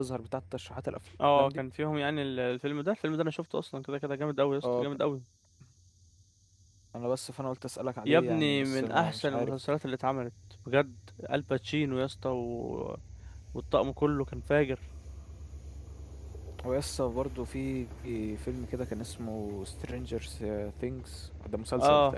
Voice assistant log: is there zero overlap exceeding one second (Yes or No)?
No